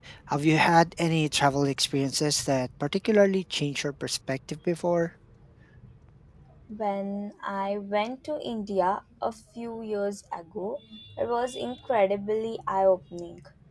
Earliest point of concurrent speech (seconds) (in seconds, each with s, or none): none